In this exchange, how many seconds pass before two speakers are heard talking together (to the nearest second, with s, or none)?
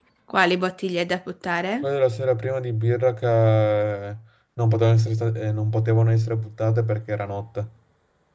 none